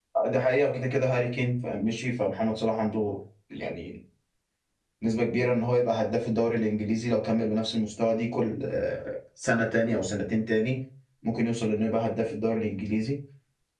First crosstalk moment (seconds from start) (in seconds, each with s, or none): none